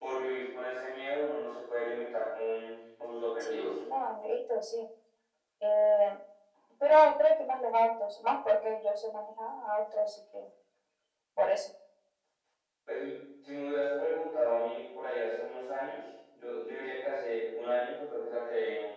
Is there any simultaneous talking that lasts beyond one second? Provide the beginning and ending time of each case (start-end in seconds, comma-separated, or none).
none